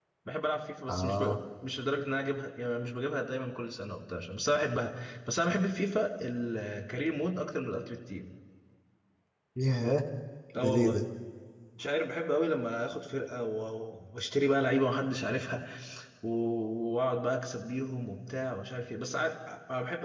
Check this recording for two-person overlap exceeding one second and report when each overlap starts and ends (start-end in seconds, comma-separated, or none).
none